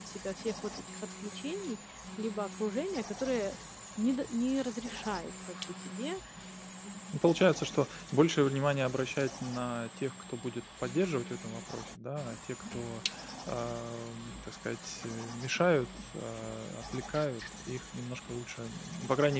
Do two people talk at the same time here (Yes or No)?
No